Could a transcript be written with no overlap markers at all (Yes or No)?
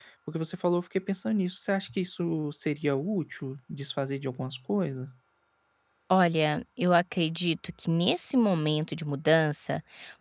Yes